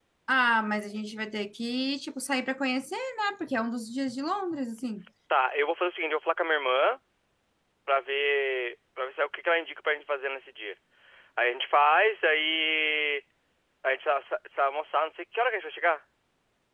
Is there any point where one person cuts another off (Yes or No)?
No